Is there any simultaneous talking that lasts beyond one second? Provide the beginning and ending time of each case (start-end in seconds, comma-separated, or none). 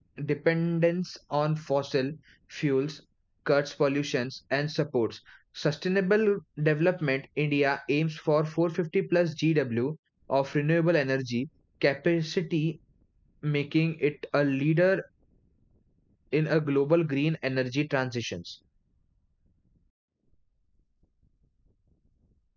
none